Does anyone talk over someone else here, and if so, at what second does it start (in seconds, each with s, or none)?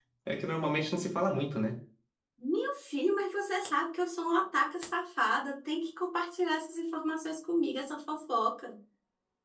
none